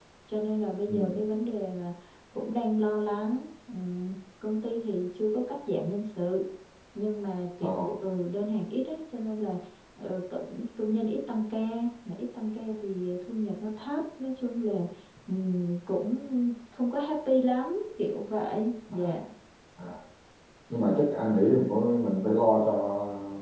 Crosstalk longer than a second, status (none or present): none